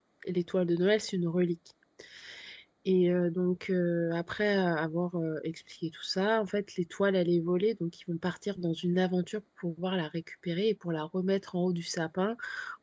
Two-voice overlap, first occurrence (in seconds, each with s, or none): none